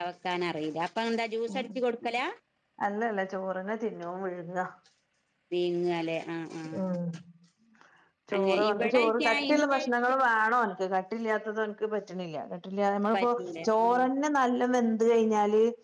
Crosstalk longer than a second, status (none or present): present